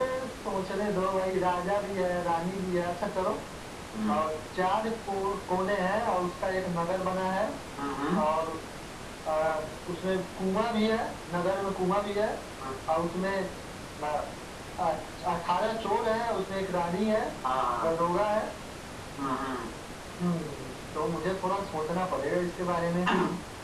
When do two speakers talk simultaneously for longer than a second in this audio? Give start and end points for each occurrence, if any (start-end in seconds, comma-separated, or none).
none